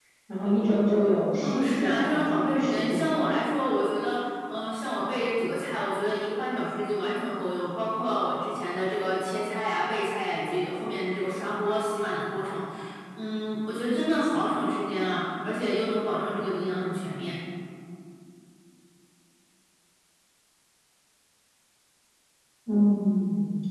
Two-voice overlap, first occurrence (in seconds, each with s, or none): 1.4 s